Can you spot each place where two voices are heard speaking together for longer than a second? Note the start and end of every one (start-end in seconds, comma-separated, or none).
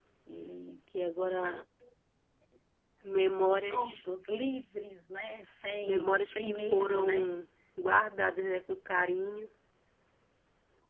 5.8-7.3